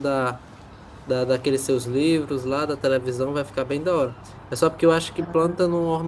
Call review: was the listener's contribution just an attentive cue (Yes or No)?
Yes